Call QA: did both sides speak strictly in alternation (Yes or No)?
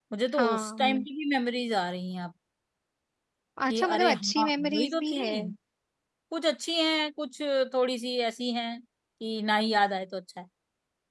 No